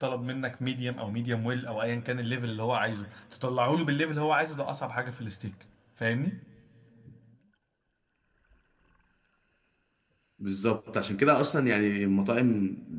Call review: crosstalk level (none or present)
none